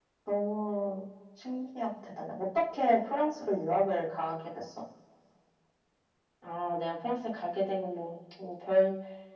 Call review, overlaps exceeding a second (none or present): none